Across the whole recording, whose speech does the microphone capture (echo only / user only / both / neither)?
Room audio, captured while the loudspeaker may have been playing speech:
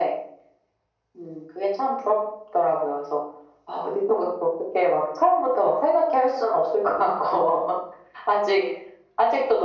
echo only